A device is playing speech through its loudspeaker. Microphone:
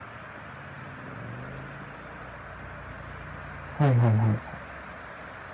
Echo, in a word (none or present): none